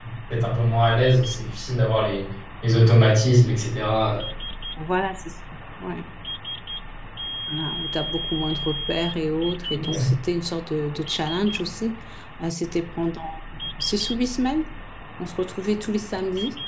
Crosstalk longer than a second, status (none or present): none